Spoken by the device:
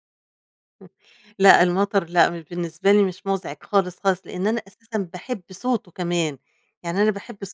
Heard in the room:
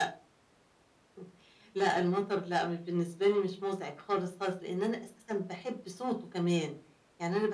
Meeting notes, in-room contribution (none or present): none